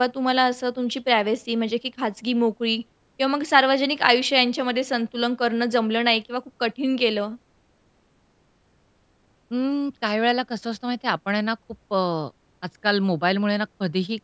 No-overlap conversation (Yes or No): Yes